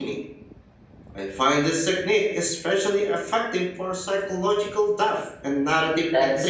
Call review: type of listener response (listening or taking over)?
taking over